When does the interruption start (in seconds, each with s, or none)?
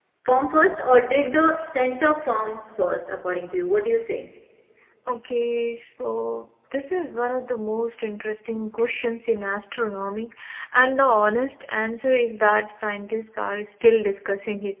none